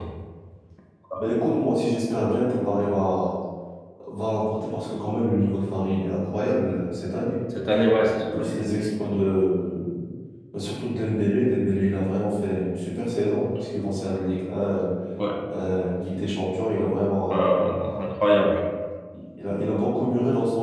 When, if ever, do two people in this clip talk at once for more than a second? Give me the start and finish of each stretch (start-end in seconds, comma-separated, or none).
none